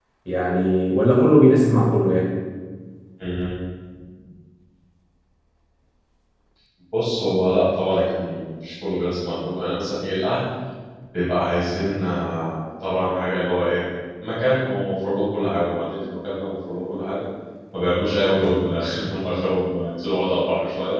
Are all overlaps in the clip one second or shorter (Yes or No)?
Yes